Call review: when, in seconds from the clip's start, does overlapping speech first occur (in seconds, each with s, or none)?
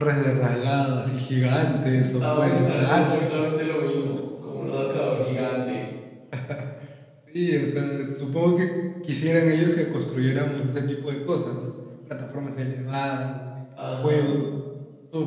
1.9 s